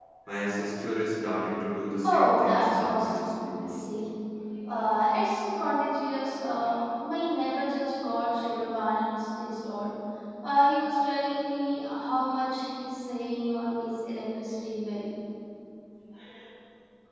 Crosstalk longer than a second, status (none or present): present